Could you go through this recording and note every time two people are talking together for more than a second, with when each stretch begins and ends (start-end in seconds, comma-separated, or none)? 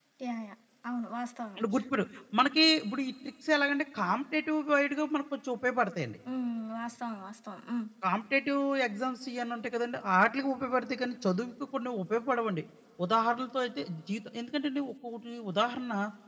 none